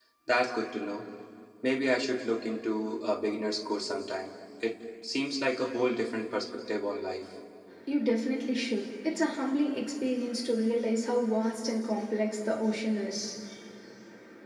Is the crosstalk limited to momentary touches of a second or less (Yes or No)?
Yes